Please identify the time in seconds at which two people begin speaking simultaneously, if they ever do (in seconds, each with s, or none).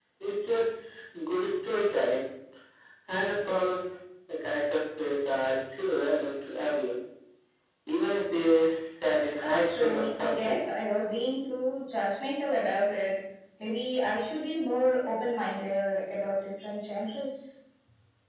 9.4 s